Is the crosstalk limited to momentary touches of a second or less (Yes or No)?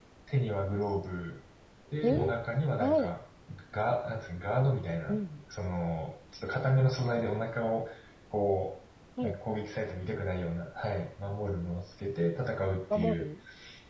Yes